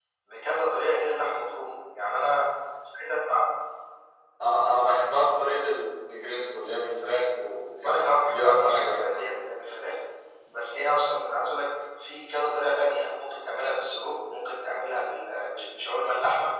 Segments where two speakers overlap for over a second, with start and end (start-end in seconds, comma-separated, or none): 7.8-9.2